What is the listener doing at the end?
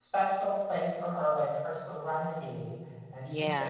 taking over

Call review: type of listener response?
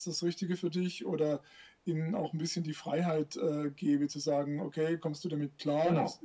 listening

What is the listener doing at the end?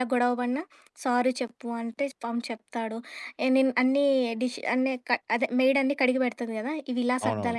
taking over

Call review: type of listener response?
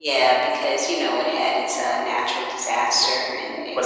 taking over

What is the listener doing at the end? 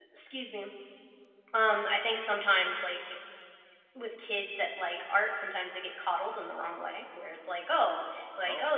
listening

